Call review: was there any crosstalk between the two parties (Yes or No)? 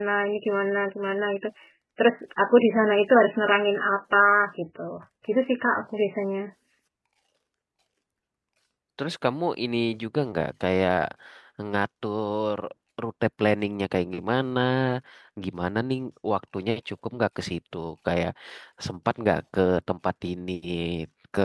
No